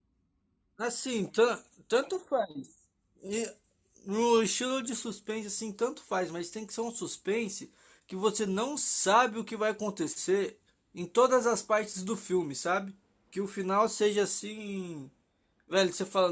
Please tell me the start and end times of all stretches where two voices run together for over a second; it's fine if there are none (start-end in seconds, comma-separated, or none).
none